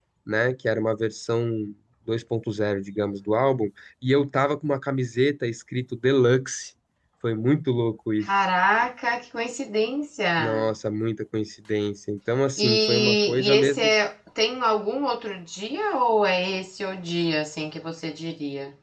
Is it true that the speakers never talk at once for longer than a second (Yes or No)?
No